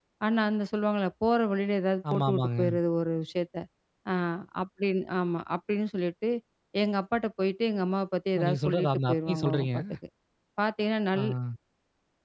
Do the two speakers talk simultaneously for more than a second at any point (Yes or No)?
Yes